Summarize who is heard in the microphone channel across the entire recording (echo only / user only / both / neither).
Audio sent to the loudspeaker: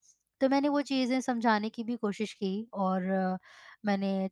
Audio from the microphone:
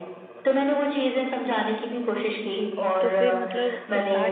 both